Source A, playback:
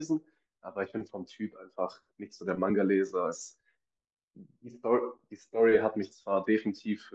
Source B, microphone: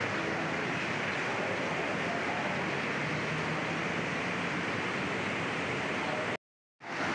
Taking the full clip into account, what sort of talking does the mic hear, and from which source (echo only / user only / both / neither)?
neither